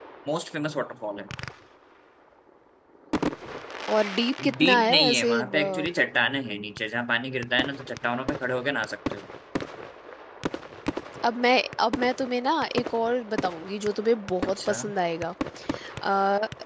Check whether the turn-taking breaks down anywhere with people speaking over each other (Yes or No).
Yes